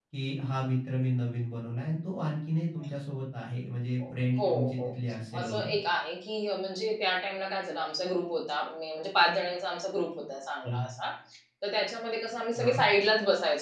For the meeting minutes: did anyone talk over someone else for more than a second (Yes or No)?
No